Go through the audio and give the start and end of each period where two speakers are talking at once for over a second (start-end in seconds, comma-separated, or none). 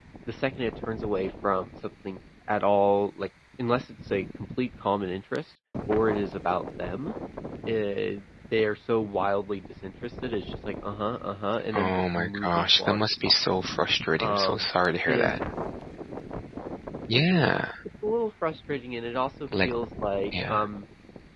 11.8-13.4